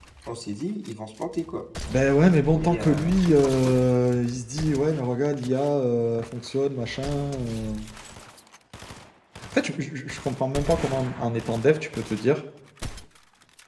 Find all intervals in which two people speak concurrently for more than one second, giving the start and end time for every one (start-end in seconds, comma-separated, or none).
2.6-3.8